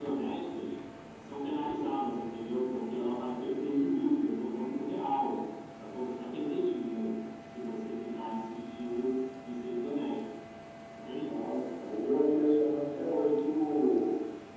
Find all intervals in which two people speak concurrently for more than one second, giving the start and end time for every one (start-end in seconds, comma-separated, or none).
none